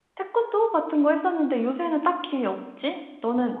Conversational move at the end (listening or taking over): taking over